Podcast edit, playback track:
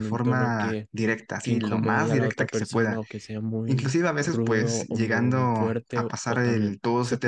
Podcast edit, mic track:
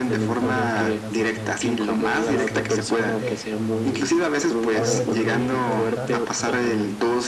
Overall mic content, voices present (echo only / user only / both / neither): both